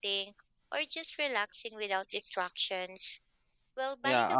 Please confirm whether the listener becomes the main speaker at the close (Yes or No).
Yes